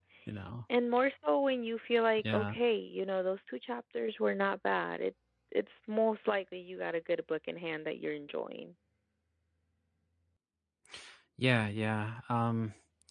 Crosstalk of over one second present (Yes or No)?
No